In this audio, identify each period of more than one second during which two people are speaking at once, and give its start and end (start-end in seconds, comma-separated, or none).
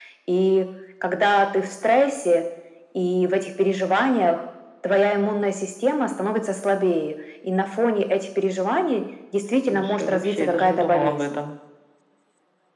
9.7-11.4